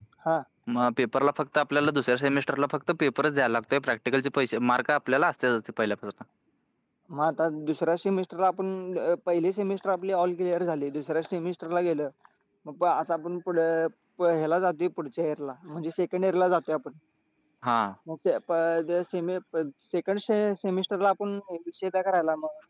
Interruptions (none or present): none